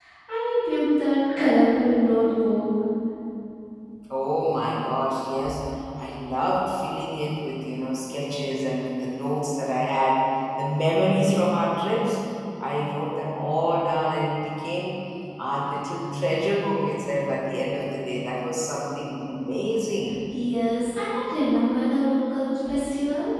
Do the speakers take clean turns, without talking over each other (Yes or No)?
Yes